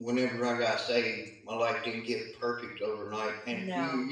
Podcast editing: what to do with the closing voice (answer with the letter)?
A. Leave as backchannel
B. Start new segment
A